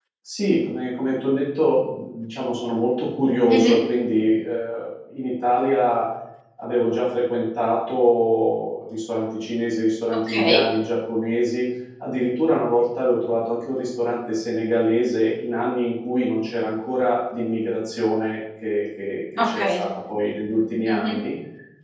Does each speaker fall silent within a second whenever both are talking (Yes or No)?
Yes